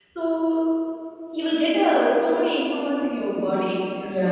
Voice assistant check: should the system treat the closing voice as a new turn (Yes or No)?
Yes